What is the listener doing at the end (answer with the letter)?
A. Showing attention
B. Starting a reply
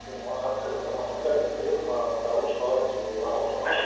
B